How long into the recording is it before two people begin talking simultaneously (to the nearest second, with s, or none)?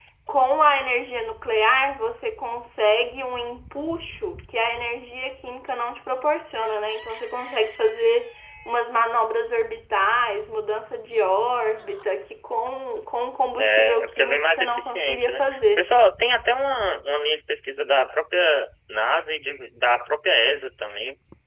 14 s